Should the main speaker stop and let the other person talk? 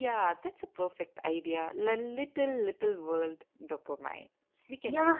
Yes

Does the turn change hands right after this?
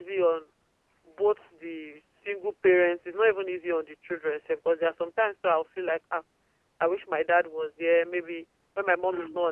No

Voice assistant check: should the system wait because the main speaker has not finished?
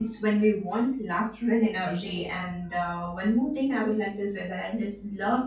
Yes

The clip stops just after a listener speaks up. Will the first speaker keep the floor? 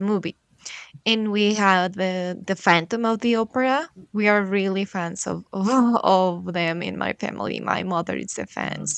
Yes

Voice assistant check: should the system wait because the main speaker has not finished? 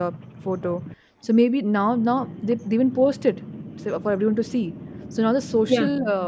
Yes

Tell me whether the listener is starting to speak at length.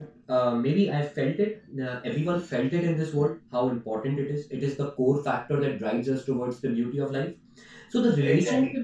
No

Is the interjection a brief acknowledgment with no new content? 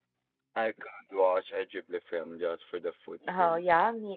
No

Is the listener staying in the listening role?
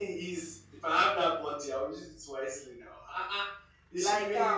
Yes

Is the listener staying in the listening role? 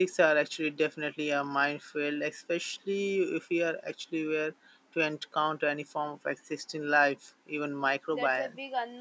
No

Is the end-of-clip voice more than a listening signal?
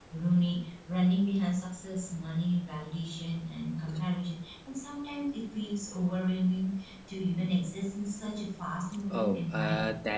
Yes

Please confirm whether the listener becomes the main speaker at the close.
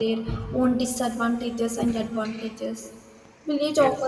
No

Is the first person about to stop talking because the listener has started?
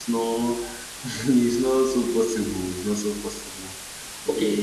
Yes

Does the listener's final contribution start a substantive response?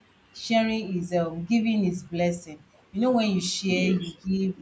No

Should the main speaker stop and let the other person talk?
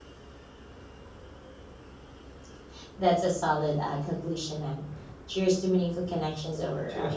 Yes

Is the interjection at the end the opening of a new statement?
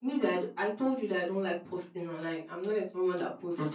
Yes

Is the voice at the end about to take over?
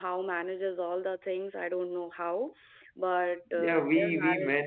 Yes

